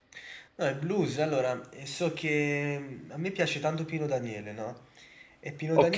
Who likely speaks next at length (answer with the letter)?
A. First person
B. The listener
A